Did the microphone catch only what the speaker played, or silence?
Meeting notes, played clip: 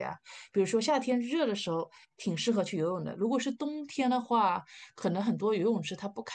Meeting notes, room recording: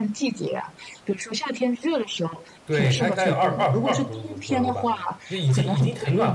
No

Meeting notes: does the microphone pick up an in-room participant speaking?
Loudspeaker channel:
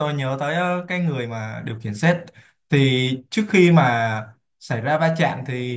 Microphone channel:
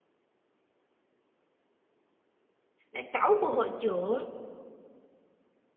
Yes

